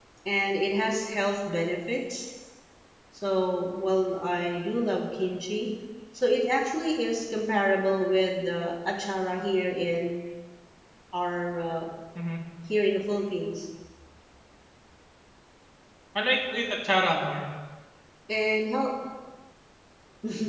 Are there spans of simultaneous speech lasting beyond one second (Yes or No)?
No